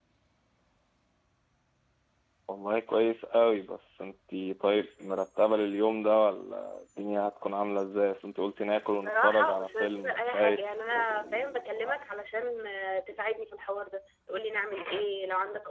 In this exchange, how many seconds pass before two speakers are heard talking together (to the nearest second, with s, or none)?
9 s